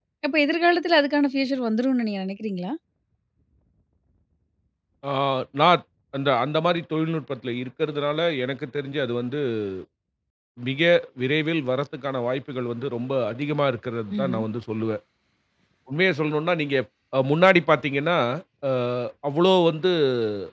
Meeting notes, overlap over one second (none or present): none